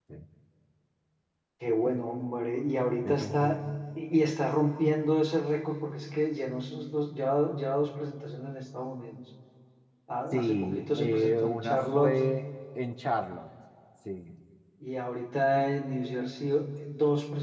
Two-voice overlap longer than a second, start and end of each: 10.3-12.2

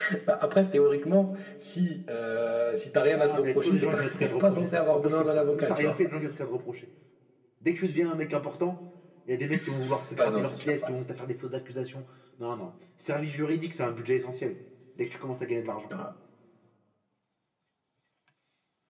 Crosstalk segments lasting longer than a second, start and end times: 3.1-6.0

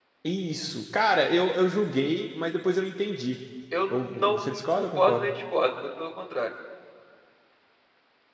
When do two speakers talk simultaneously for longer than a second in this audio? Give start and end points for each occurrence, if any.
3.9-5.3

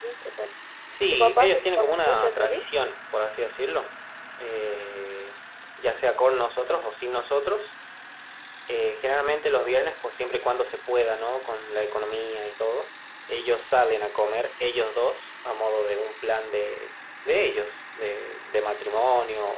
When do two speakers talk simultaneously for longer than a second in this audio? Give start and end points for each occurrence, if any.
1.1-2.6

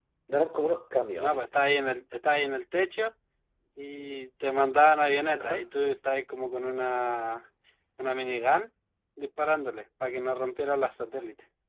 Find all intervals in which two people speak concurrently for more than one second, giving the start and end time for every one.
none

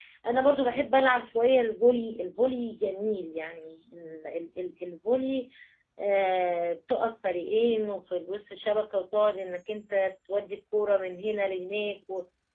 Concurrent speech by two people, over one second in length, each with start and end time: none

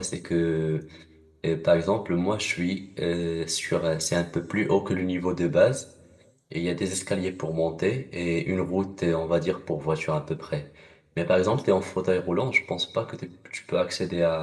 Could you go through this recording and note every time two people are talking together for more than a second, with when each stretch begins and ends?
none

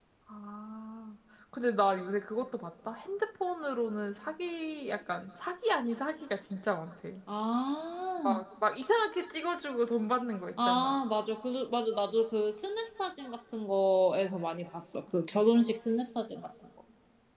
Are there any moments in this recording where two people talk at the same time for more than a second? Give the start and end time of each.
none

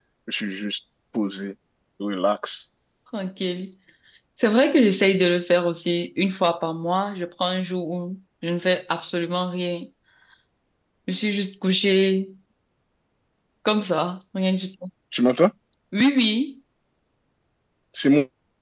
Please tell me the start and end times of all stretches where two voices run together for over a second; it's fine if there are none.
none

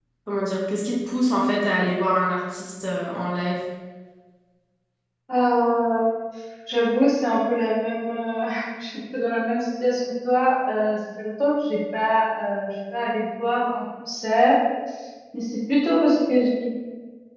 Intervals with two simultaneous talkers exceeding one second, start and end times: none

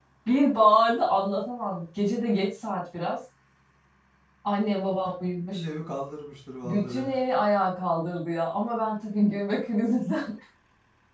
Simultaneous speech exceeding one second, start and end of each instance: none

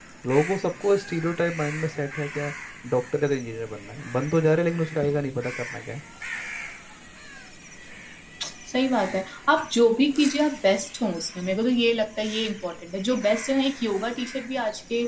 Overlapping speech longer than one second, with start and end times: none

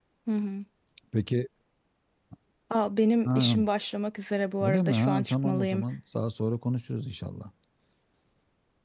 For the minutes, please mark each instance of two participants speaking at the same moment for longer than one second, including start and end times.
4.6-5.8

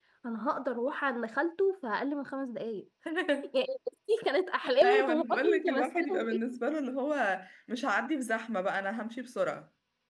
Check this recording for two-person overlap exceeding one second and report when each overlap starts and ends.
4.8-6.1

